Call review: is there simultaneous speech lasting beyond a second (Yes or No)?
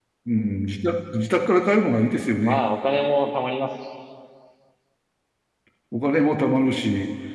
No